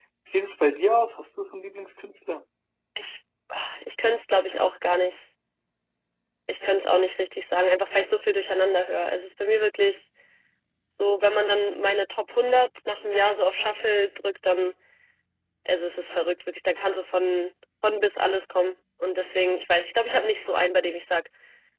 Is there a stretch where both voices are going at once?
No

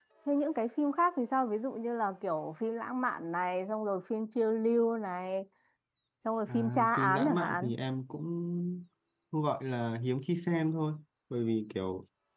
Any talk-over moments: Yes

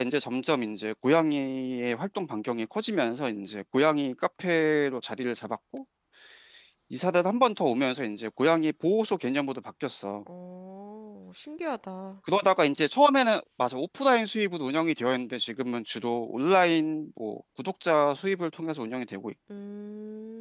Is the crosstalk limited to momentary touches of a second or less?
Yes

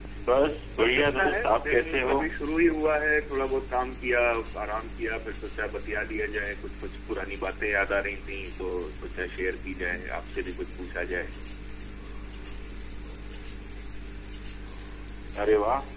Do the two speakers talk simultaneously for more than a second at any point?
Yes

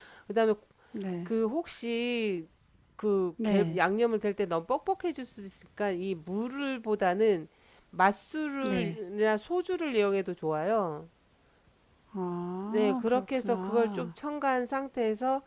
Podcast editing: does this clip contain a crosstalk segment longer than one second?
Yes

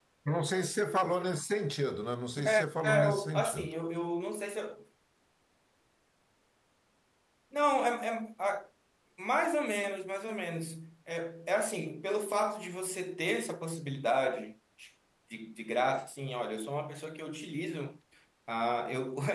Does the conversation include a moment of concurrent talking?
Yes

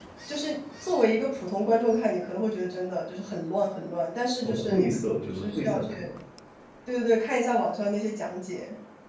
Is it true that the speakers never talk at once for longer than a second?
No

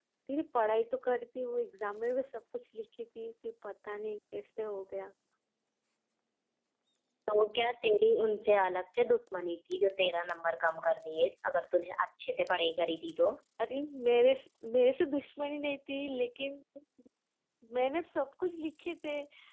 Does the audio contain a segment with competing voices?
No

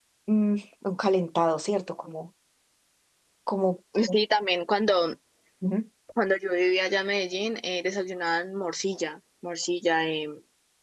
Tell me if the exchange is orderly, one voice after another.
Yes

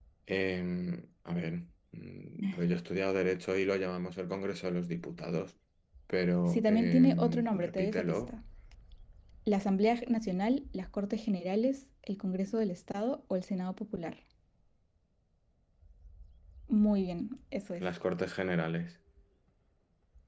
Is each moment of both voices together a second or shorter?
No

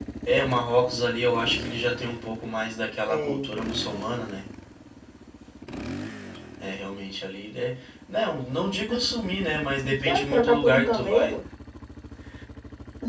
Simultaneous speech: Yes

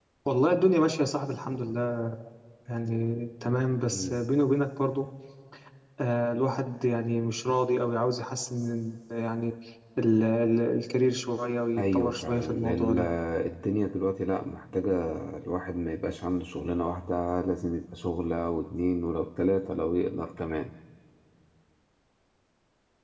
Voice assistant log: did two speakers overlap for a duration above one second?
Yes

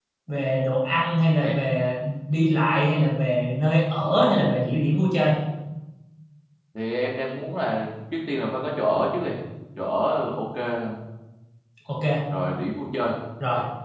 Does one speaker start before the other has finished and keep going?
No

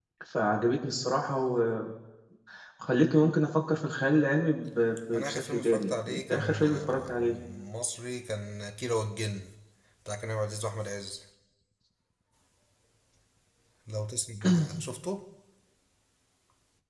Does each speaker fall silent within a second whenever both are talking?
No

